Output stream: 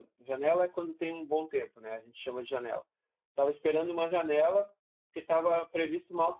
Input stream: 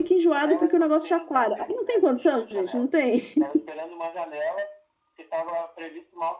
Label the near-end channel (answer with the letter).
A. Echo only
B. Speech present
B